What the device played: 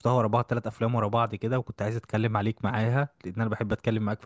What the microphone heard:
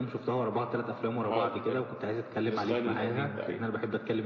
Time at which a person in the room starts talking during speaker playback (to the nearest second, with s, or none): 1 s